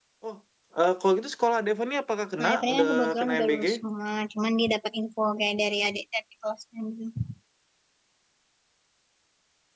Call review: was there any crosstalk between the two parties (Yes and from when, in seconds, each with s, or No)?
Yes, from 2.4 s